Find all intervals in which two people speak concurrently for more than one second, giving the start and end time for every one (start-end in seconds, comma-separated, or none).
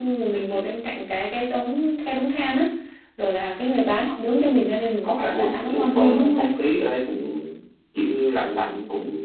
5.0-6.5